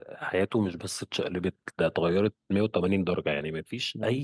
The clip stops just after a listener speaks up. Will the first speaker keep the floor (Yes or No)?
Yes